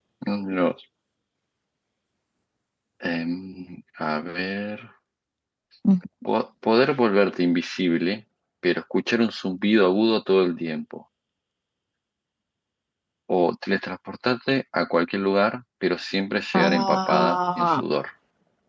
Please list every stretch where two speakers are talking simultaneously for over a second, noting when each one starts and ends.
16.5-17.8

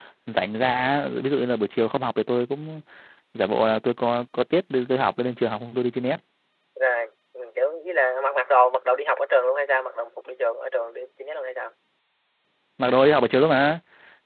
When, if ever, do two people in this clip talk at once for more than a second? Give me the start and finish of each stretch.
none

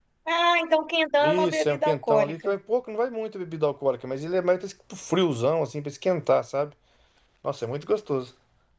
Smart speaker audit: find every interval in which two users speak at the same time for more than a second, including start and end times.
1.2-2.5

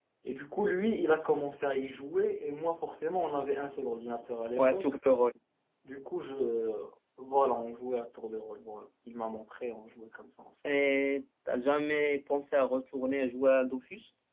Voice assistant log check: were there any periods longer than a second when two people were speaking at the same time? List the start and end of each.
none

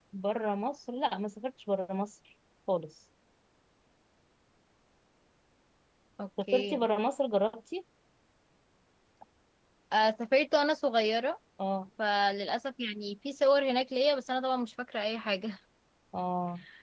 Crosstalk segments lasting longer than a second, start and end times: none

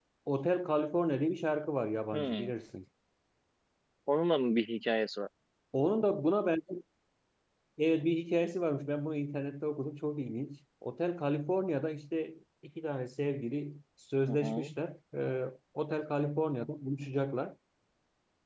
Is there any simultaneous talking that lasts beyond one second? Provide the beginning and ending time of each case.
none

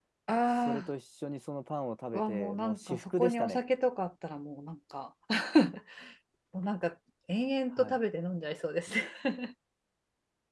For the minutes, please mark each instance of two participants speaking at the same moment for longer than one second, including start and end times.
2.1-3.6

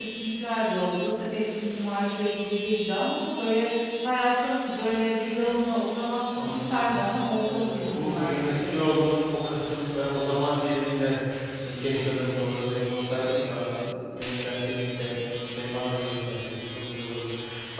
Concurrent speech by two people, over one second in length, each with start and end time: 7.4-8.8

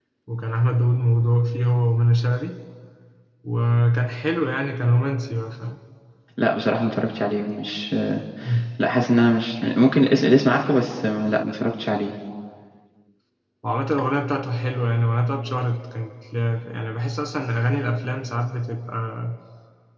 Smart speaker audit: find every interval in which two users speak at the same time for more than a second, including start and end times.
none

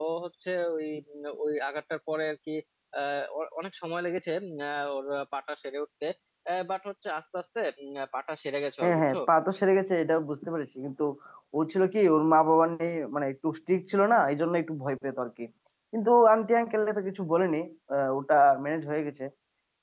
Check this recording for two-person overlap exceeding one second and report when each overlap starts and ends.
none

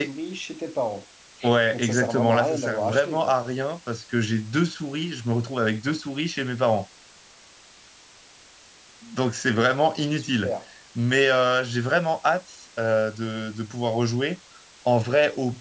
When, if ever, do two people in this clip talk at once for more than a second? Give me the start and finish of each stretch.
1.7-3.3

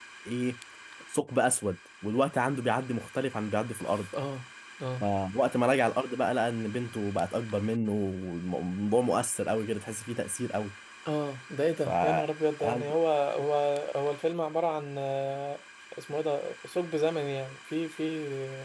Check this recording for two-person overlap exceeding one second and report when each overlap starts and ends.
none

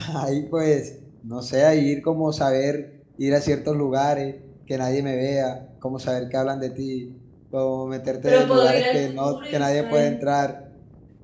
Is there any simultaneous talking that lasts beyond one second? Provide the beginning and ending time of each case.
8.2-10.1

